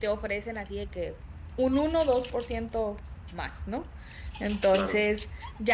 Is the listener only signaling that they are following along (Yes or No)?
Yes